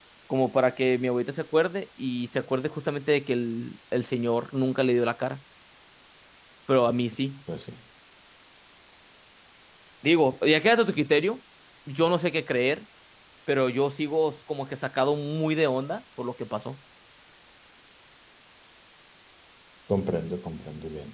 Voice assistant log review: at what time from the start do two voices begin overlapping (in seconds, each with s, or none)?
none